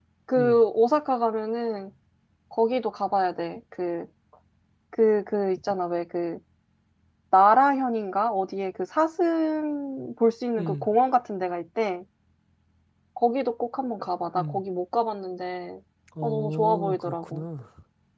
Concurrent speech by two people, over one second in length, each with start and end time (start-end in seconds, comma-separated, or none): 16.2-17.4